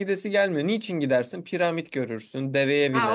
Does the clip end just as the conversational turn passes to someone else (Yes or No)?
Yes